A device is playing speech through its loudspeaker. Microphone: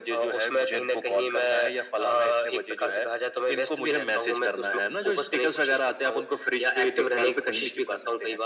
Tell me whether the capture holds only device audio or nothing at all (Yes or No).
Yes